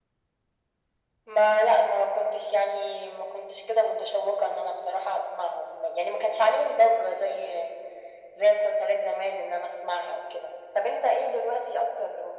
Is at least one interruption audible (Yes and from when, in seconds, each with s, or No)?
No